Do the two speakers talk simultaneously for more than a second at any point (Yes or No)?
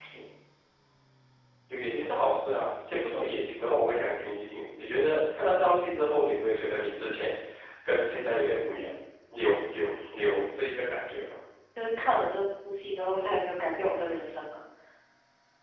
No